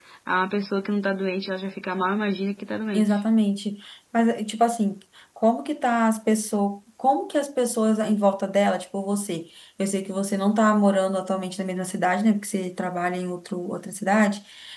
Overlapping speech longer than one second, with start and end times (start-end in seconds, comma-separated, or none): none